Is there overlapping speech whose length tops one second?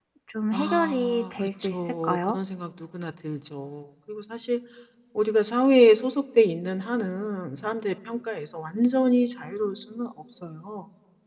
Yes, from 0.5 s

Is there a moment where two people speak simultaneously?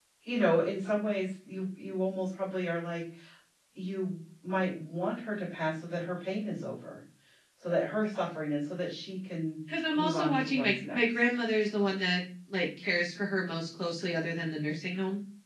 Yes, from 9.9 s

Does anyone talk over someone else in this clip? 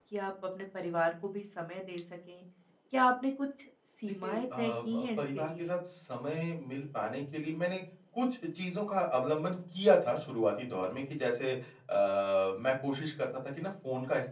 Yes, from 4.2 s

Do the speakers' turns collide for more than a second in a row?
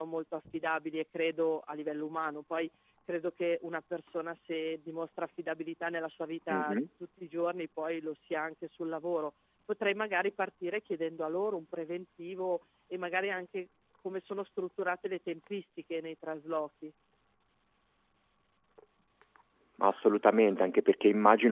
No

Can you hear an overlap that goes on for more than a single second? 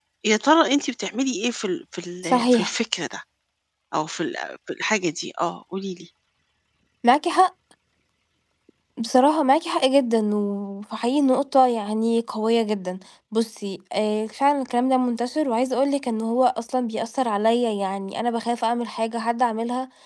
No

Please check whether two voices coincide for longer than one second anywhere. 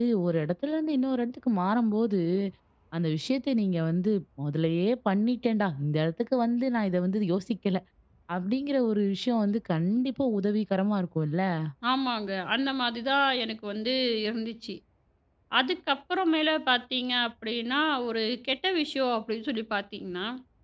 No

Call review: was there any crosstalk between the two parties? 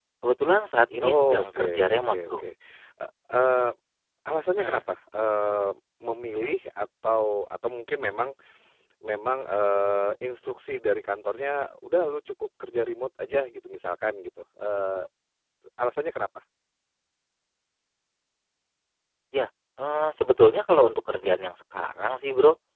Yes, from 1.0 s

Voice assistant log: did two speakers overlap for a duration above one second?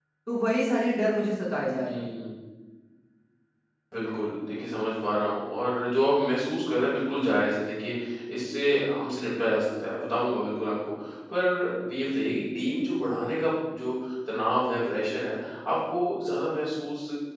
No

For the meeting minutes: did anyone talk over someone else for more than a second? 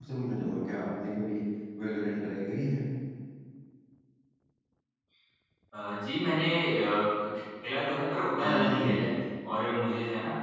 No

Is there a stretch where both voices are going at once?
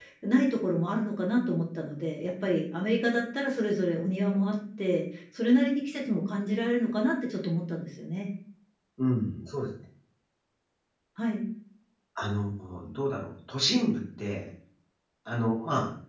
No

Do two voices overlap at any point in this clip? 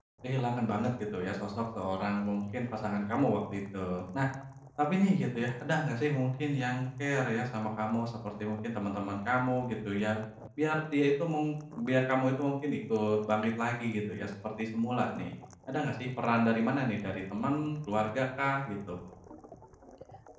No

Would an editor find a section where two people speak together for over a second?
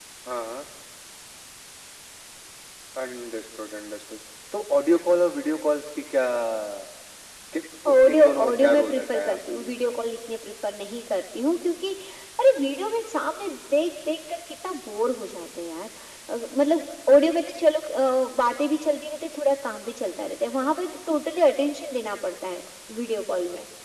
Yes, from 7.9 s

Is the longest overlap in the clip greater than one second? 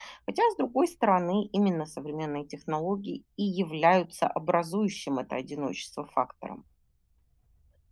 No

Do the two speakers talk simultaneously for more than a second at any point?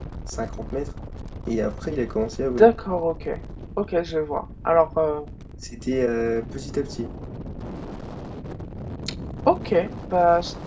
No

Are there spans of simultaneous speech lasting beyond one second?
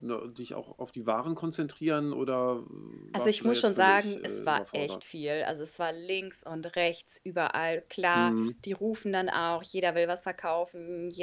Yes, from 3.2 s

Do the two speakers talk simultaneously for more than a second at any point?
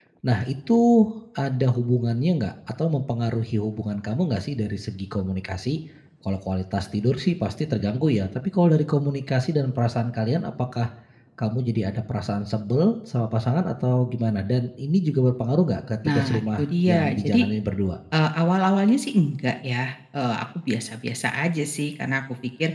Yes, from 16.0 s

